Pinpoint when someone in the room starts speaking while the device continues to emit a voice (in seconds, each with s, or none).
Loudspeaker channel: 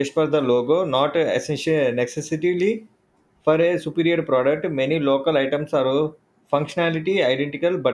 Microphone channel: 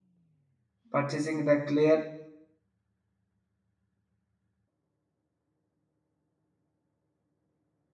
0.9 s